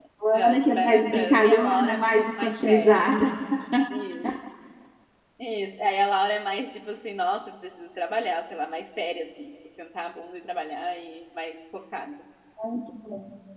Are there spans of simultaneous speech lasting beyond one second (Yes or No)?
Yes